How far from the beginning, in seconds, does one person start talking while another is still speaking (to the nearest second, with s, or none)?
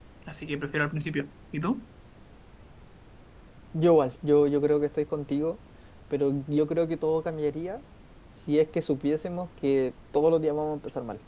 none